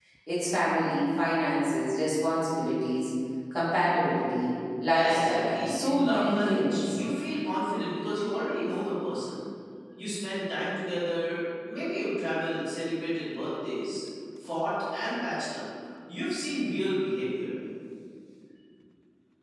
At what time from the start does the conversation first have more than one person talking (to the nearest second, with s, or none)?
5 s